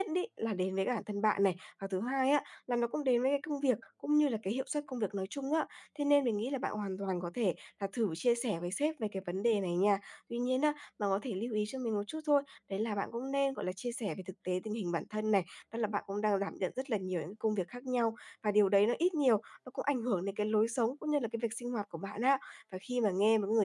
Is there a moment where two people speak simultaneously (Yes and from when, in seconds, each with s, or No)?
No